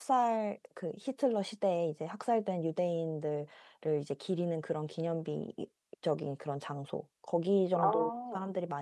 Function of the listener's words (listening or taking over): listening